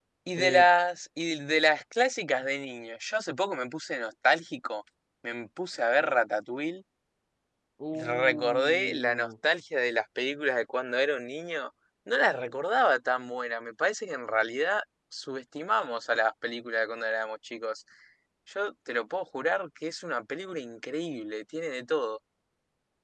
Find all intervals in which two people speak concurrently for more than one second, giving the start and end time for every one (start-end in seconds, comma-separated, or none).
7.9-9.3